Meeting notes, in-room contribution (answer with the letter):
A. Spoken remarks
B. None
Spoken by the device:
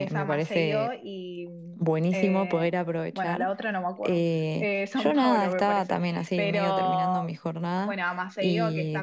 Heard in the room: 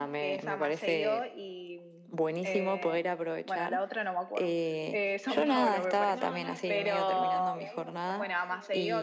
A